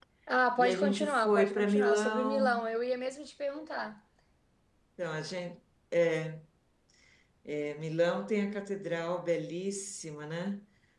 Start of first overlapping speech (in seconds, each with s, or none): 0.6 s